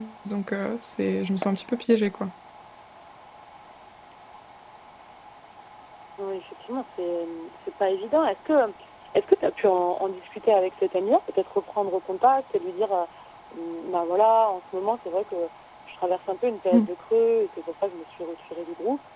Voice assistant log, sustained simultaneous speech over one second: none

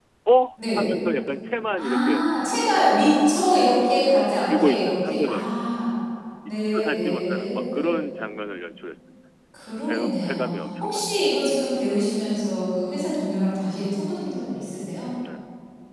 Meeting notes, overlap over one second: present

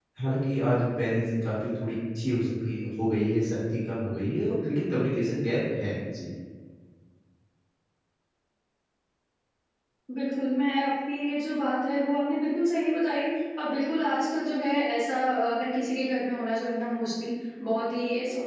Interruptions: none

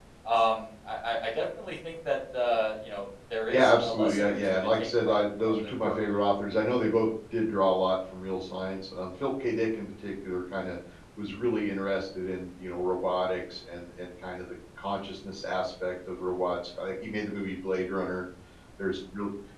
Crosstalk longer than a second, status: present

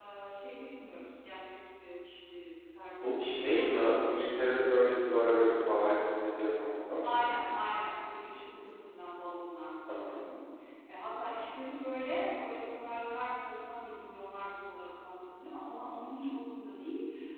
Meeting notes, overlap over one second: present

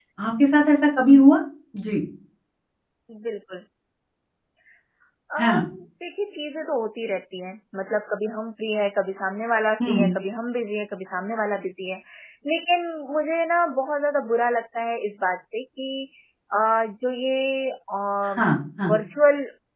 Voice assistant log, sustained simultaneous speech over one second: none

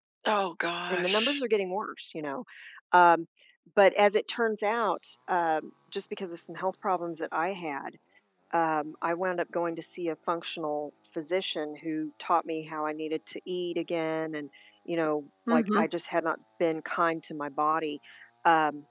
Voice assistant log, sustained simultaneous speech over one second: none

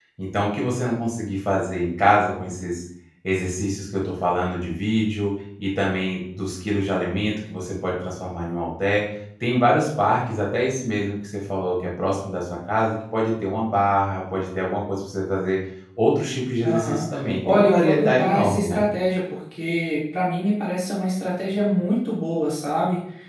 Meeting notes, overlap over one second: present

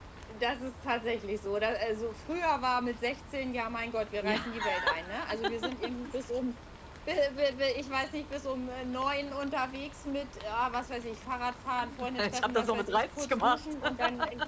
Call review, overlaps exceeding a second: present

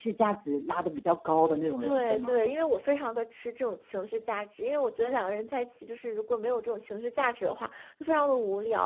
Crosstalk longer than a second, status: none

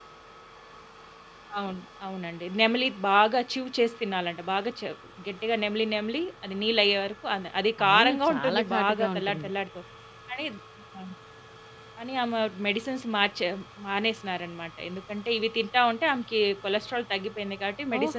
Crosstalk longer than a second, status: present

